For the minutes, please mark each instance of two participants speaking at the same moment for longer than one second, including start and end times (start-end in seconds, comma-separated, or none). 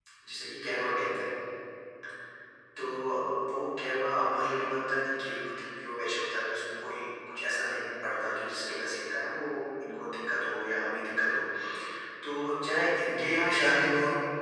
none